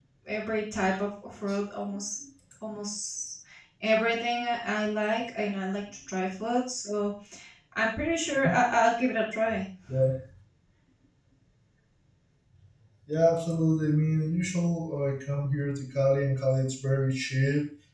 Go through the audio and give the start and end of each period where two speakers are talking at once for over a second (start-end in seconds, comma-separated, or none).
none